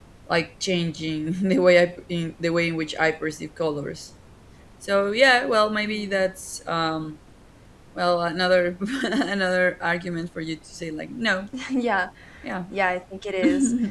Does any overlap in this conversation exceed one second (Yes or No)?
No